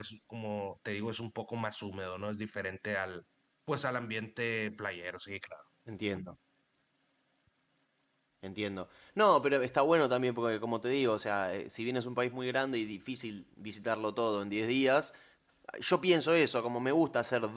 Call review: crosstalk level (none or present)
none